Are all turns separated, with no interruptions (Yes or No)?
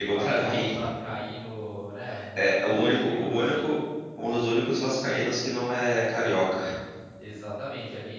No